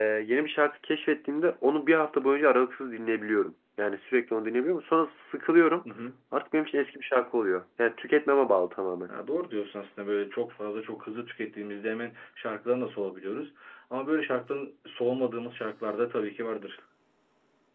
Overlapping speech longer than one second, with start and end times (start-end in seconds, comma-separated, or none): none